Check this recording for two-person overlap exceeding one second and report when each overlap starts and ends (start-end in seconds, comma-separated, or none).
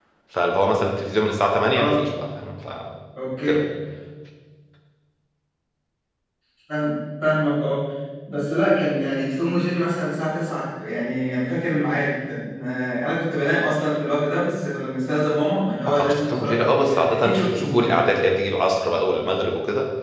15.9-18.0